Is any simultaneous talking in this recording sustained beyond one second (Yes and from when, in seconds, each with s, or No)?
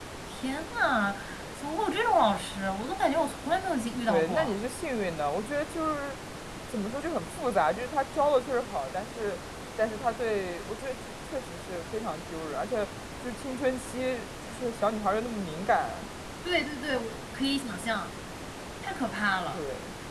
No